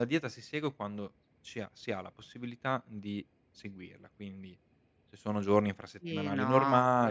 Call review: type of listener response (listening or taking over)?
taking over